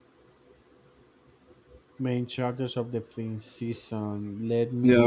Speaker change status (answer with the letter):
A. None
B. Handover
B